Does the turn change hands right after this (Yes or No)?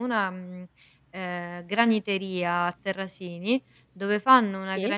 No